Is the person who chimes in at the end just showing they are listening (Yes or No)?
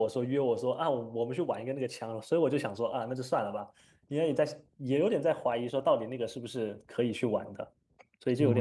No